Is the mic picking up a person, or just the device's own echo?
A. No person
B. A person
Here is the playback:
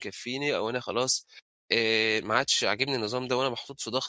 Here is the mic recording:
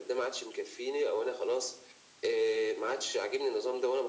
A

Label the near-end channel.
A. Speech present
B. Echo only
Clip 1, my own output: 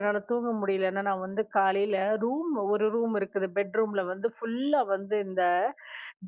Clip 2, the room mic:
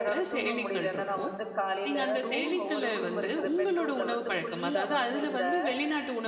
A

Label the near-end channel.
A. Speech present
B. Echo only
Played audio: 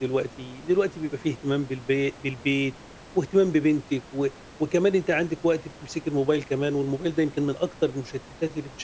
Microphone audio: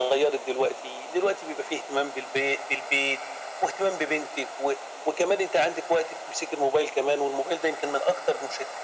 B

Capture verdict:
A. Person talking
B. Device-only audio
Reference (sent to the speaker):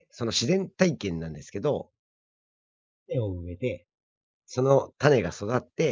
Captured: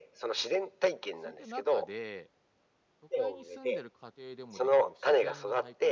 A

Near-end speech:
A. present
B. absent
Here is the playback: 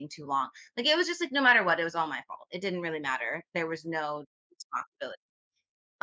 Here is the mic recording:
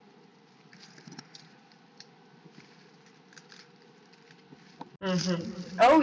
A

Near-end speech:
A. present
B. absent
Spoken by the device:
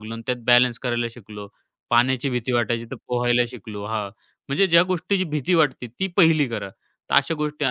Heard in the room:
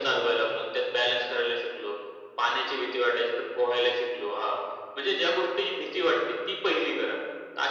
B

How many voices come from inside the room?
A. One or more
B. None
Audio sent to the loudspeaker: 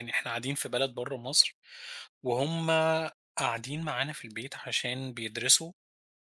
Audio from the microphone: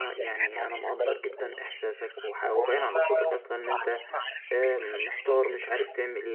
A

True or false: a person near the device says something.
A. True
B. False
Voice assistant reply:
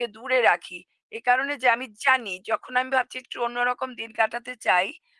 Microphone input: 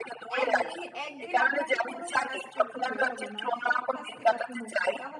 A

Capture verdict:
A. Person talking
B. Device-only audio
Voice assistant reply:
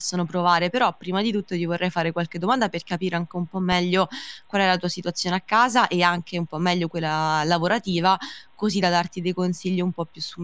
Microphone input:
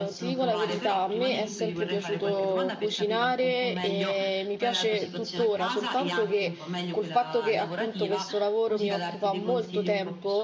A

